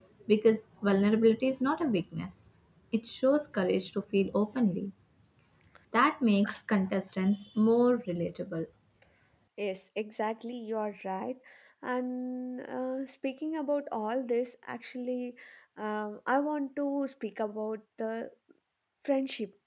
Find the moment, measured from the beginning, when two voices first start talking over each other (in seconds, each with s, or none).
none